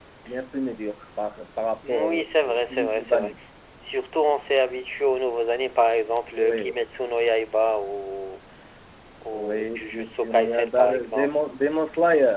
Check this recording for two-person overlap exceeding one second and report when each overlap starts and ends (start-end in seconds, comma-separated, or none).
1.9-3.3, 9.3-11.4